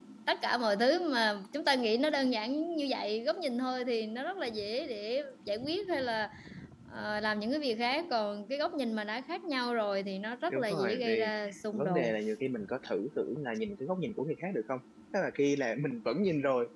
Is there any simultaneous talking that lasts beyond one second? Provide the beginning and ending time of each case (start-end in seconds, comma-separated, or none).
10.5-12.1